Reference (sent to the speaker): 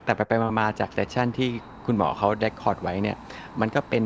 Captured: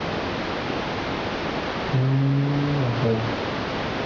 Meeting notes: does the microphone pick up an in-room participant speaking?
Yes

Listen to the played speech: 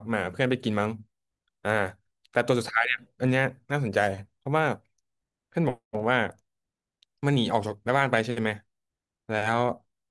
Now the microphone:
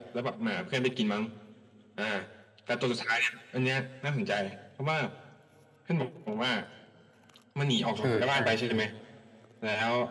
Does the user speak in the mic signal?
Yes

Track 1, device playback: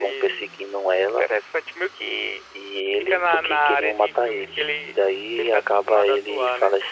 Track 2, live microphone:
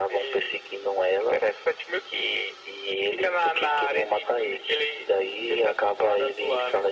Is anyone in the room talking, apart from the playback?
No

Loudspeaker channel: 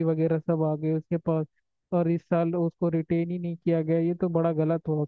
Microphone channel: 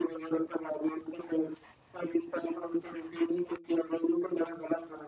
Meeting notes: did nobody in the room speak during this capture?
Yes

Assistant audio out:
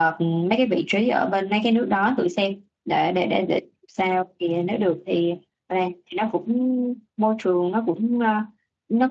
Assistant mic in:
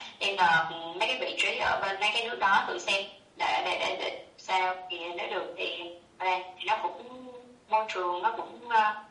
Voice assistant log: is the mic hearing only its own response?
Yes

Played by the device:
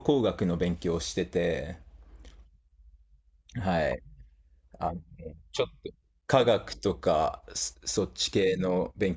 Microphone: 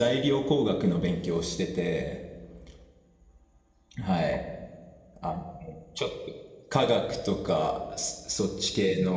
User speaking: No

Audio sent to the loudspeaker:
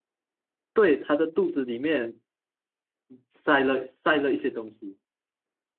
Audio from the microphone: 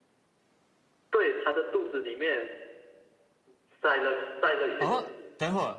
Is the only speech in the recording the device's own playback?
No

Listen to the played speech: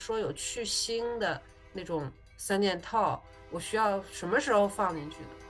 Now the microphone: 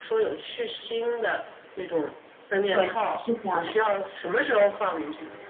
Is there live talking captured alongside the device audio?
Yes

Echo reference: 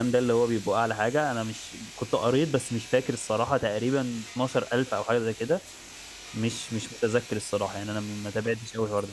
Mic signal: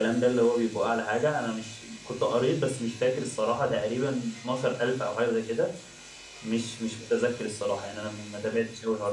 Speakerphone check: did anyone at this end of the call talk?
No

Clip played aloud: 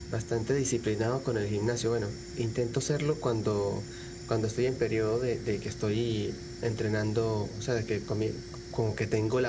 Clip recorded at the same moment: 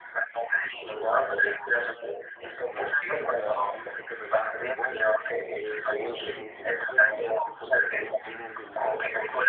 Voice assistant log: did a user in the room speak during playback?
Yes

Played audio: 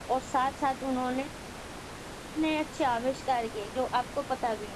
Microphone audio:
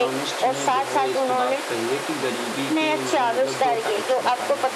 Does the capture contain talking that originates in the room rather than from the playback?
Yes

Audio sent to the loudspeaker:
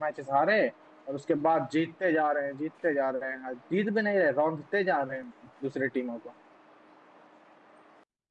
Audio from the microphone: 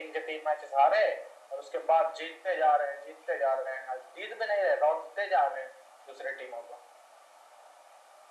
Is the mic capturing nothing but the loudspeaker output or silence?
Yes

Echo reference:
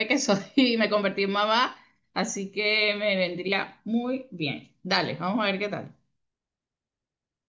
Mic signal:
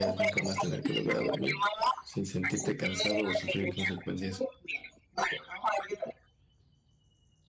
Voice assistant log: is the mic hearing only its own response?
No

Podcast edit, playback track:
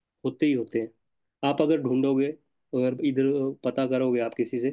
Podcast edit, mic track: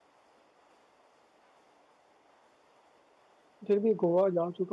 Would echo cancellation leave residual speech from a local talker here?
Yes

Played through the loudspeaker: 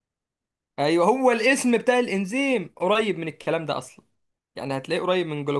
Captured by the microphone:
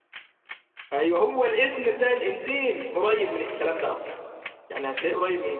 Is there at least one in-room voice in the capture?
No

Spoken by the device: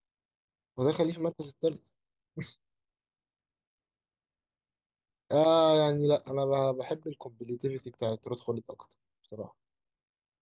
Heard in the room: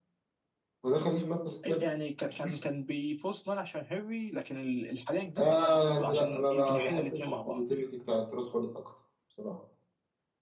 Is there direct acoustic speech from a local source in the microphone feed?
Yes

